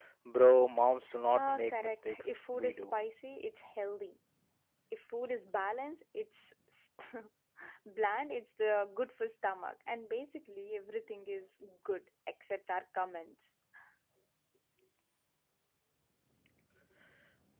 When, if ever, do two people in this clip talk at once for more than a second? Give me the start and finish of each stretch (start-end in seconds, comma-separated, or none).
1.3-2.9